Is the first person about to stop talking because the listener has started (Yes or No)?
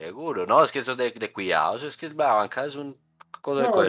Yes